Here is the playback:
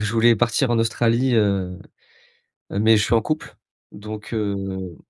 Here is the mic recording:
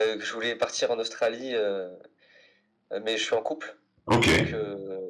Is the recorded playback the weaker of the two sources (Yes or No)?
Yes